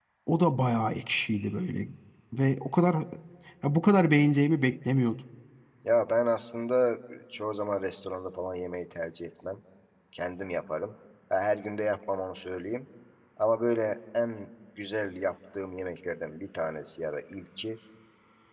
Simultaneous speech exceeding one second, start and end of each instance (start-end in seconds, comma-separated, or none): none